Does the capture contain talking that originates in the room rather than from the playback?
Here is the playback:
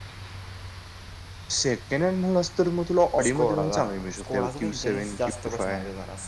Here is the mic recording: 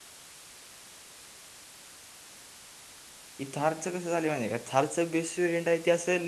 Yes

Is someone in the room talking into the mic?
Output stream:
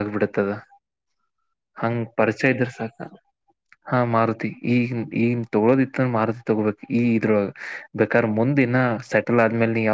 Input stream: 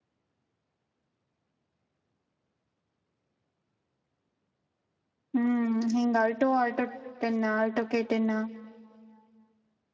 Yes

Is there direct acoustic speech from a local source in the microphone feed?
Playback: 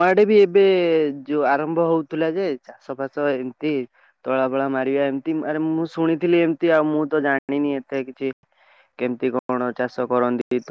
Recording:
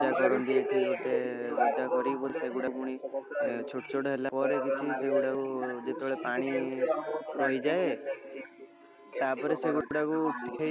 Yes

